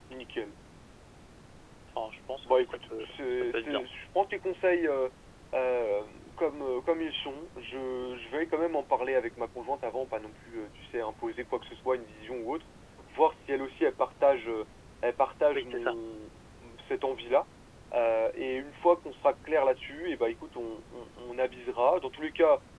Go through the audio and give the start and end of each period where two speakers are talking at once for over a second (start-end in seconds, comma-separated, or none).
2.5-3.8